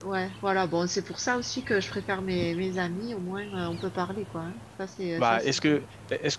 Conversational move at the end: taking over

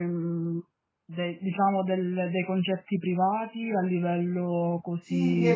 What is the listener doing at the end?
taking over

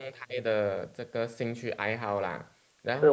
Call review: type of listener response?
taking over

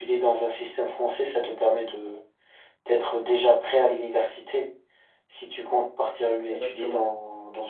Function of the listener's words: listening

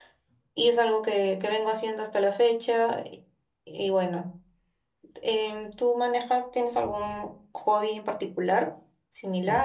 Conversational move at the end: taking over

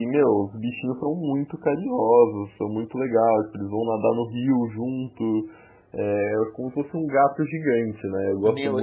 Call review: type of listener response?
taking over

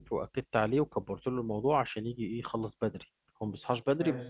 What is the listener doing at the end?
listening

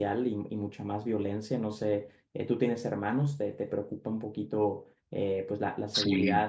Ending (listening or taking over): listening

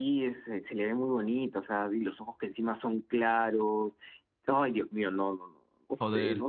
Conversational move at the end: taking over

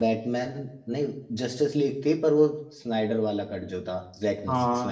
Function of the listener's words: taking over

